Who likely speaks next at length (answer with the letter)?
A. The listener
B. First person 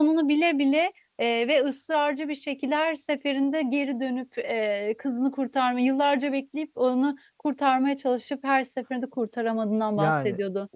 A